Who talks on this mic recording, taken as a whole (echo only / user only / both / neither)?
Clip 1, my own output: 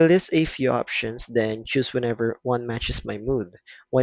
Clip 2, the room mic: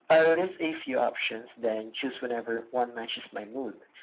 echo only